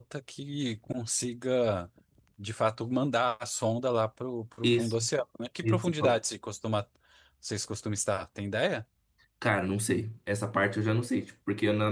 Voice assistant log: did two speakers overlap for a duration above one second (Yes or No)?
No